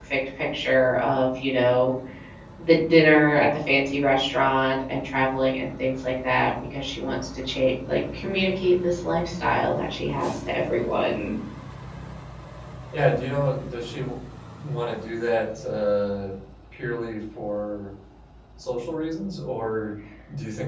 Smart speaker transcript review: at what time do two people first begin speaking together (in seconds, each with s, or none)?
none